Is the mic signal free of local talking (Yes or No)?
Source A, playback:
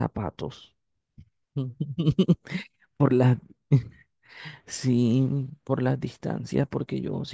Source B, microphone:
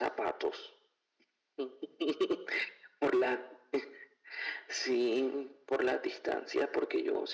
Yes